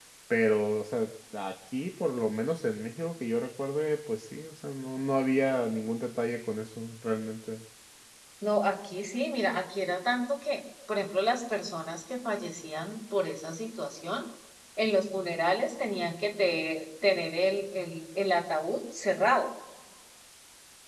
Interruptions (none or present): none